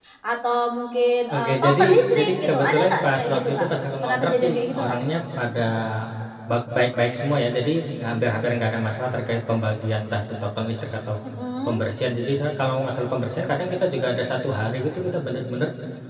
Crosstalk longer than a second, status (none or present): present